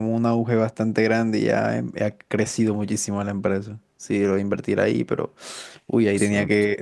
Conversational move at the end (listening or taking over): listening